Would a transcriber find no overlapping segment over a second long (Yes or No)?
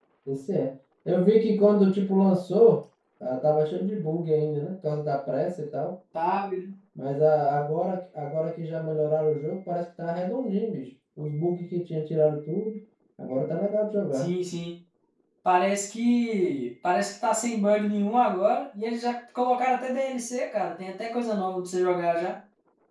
Yes